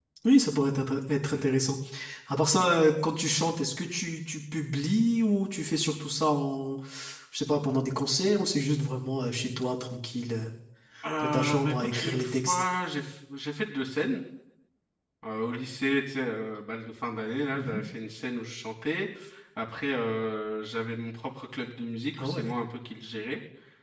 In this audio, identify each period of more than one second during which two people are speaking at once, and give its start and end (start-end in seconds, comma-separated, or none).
11.2-12.6